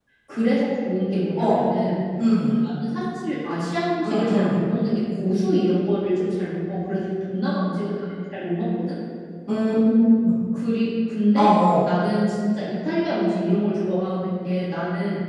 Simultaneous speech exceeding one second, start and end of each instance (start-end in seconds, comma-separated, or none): none